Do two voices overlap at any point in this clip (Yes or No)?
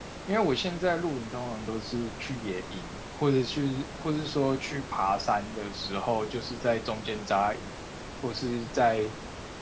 No